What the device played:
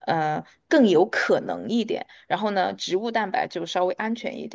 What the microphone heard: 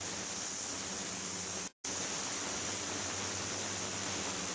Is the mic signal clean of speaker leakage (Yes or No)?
Yes